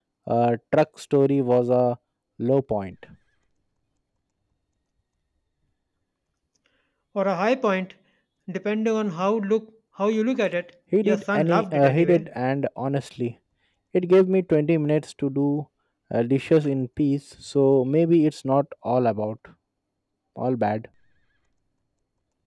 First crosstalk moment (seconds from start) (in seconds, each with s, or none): 10.9 s